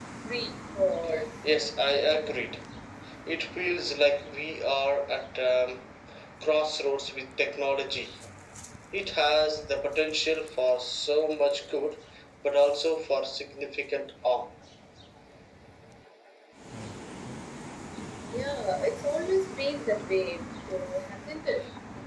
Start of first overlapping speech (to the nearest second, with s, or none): none